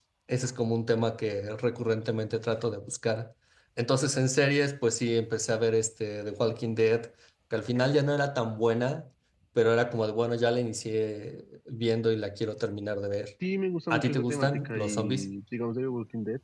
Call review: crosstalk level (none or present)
present